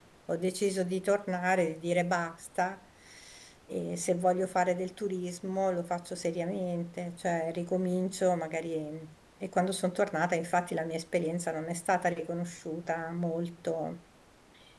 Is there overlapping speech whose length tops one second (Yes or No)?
No